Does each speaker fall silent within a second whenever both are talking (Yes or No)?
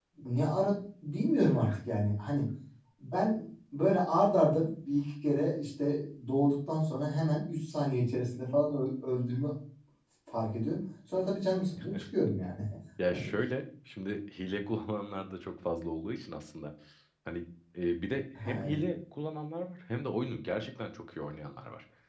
Yes